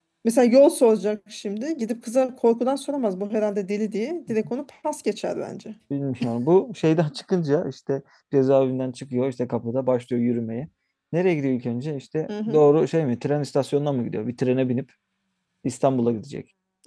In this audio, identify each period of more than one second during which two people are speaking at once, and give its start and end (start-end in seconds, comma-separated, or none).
none